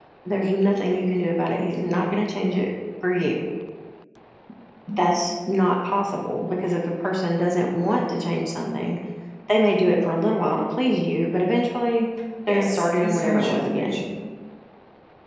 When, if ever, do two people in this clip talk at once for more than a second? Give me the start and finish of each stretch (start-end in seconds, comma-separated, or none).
12.5-14.0